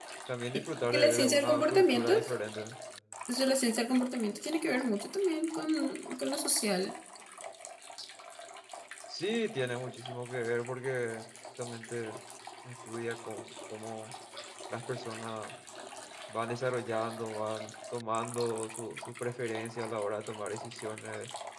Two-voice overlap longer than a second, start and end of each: 0.8-2.1

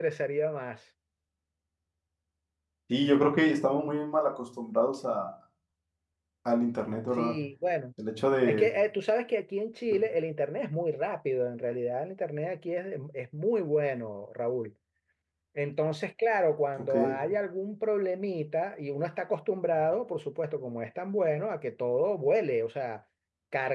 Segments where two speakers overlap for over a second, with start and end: none

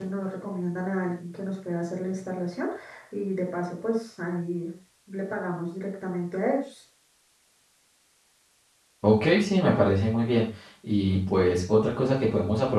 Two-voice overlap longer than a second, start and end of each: none

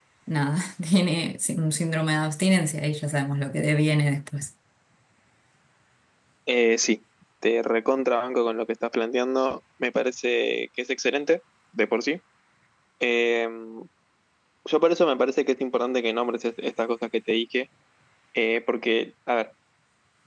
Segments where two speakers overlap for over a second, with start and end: none

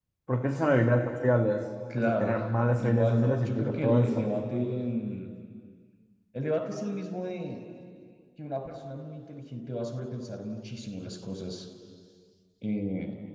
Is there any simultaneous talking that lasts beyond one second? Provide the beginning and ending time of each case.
2.8-4.3

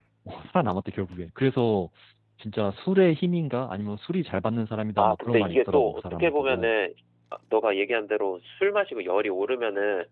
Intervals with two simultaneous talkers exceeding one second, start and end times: 5.0-6.7

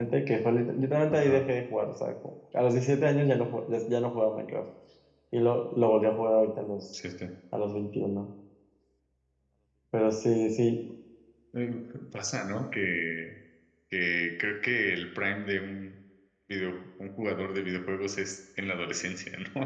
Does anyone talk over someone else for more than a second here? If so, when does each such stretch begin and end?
none

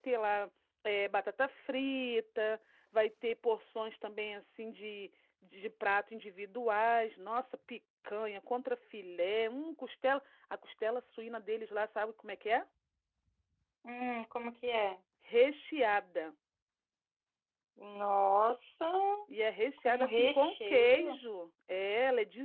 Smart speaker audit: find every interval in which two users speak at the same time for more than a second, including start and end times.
19.9-21.2

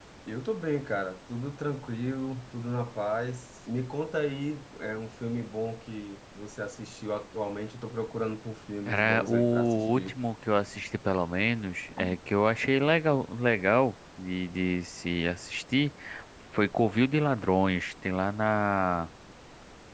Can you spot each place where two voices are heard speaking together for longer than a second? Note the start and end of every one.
8.9-10.2

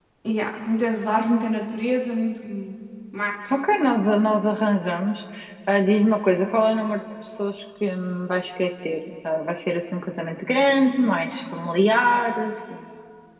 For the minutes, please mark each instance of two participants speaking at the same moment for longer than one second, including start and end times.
none

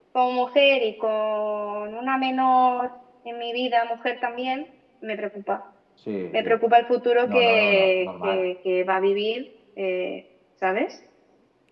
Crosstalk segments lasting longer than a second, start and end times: 7.2-8.5

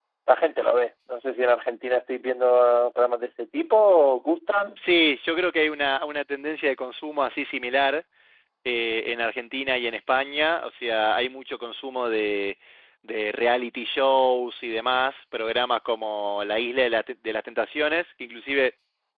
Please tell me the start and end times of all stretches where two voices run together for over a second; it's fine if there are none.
none

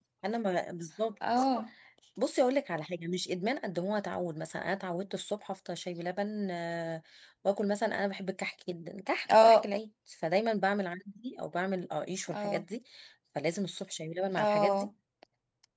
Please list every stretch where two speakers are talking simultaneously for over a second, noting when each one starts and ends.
none

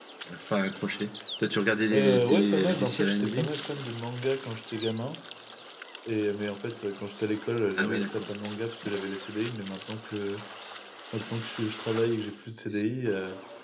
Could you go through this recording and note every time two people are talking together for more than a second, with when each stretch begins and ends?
1.9-3.5

